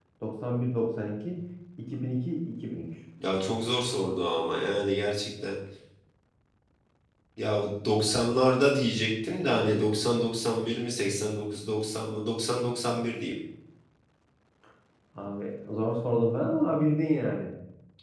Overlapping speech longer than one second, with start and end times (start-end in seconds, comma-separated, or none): none